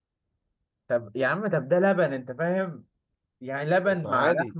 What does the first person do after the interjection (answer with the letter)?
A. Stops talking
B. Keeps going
B